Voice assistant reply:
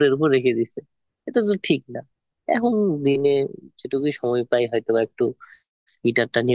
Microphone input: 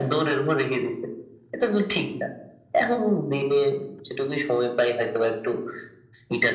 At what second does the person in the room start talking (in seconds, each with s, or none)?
none